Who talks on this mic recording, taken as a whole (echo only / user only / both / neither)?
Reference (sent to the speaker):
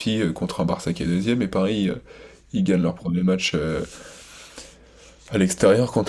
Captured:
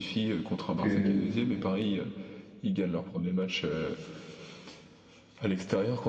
both